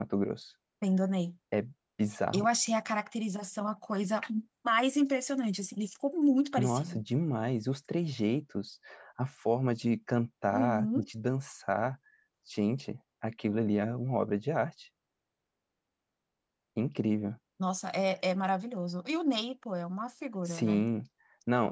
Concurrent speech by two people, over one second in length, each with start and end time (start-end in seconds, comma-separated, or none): none